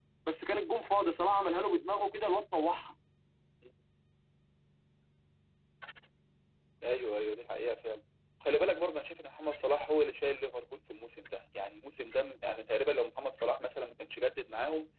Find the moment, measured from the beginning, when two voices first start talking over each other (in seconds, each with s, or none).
none